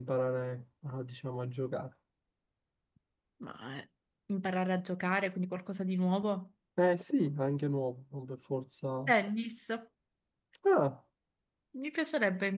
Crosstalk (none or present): none